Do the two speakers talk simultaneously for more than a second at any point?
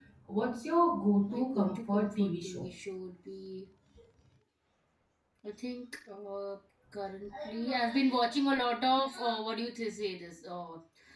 Yes, from 1.3 s

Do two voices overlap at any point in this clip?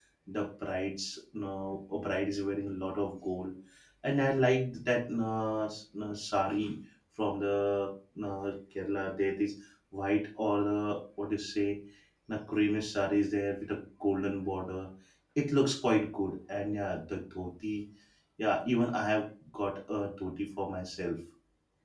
No

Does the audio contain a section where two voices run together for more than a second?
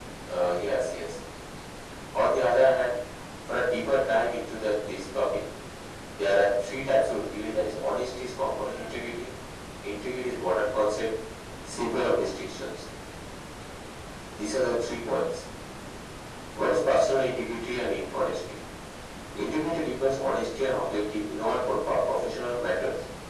No

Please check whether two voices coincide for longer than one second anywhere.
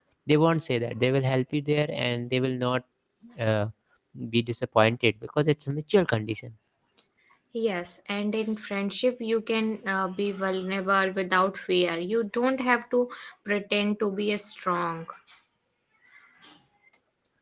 No

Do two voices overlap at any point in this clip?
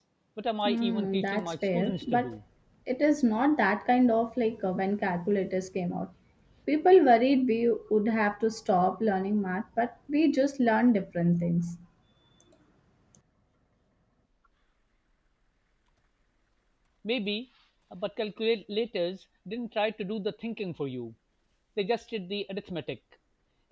Yes, from 0.7 s

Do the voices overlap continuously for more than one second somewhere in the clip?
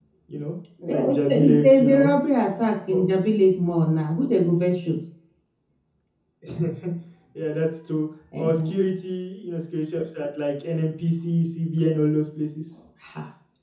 Yes, from 0.9 s

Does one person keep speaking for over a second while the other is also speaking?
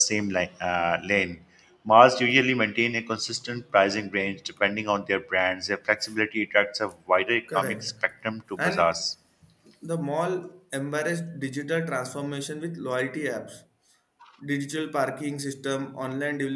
No

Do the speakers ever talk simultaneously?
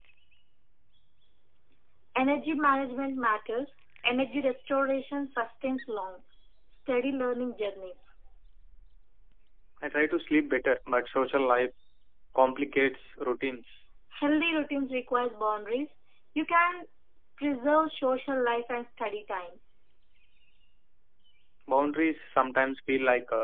No

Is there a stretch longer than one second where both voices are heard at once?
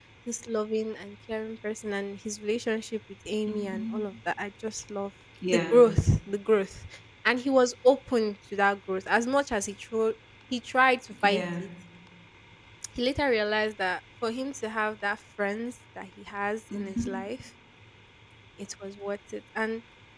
No

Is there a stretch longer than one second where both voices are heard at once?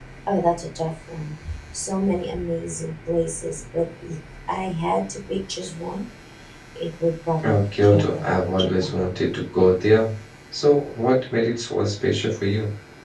Yes, from 7.4 s

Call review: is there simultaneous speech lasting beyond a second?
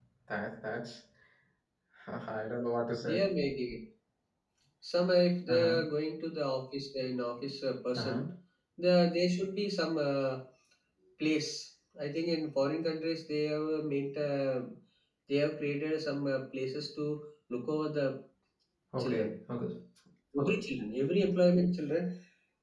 No

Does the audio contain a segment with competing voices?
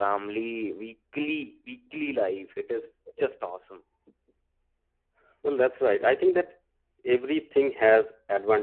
No

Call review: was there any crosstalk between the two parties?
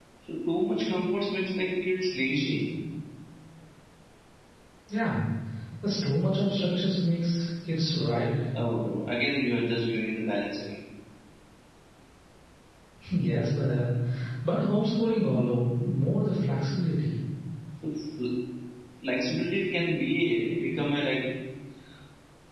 No

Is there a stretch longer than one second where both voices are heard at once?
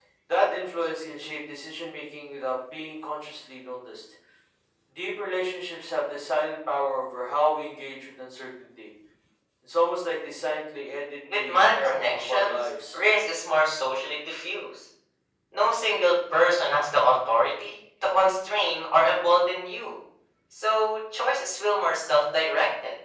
Yes, from 11.3 s

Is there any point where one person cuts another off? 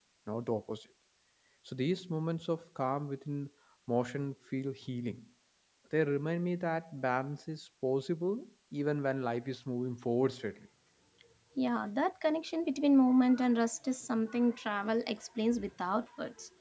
No

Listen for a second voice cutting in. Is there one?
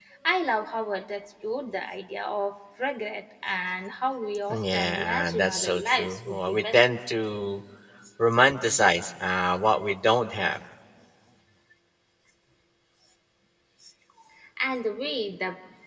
Yes, from 4.5 s

